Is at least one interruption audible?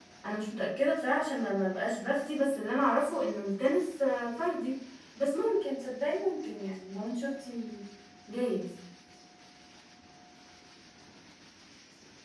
No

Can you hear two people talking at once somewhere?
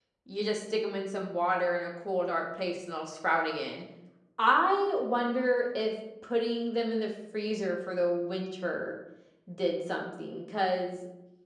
No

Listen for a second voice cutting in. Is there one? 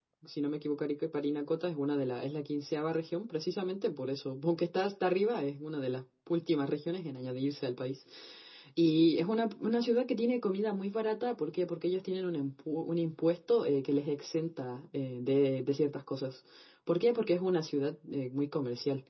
No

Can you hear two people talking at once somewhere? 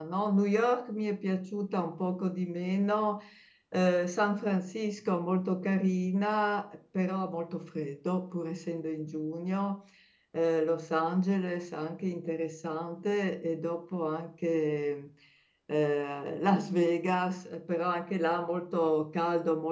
No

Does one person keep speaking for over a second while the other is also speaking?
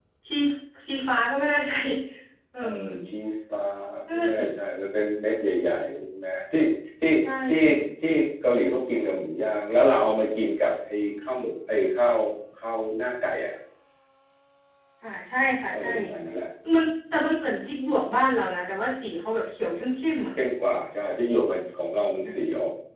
No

